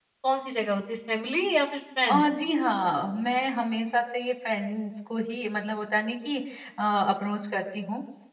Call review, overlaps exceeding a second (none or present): none